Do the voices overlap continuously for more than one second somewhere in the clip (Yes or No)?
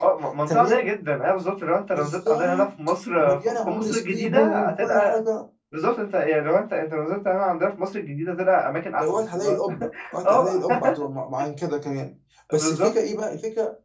Yes